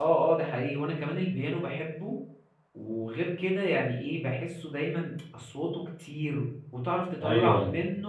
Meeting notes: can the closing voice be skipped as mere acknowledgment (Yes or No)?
Yes